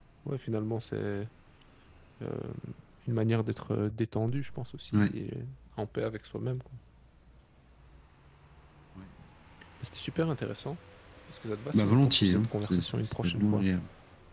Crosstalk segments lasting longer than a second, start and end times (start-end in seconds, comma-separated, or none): 11.7-13.6